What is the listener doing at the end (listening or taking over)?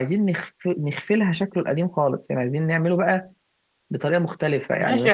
taking over